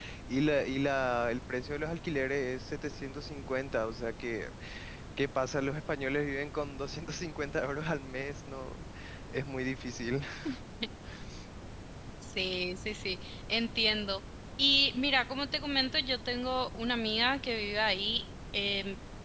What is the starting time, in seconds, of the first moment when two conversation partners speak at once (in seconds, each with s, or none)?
none